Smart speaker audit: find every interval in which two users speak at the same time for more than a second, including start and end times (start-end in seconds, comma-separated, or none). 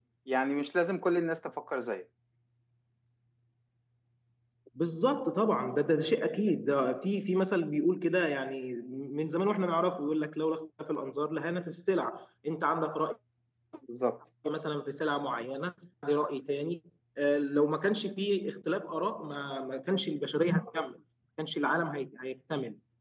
none